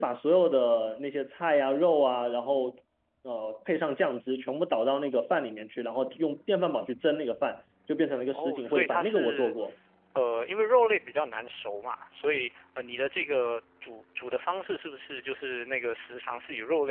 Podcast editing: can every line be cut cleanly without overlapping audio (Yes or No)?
No